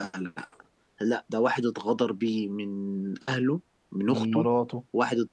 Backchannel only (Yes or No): Yes